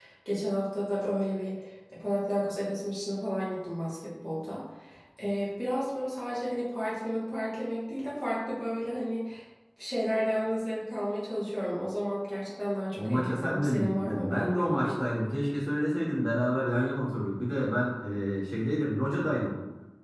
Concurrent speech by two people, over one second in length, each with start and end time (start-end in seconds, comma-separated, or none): 13.0-15.0